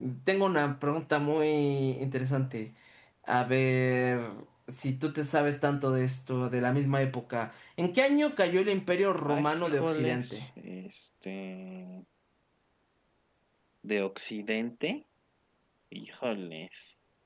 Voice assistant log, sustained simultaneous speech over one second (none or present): present